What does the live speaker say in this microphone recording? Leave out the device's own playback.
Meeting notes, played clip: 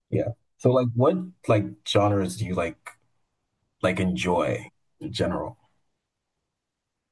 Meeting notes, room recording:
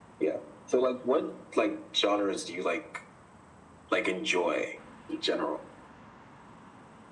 none

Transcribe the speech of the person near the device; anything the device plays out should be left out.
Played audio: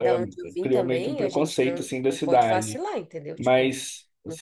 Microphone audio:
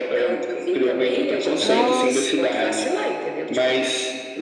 Nossa.

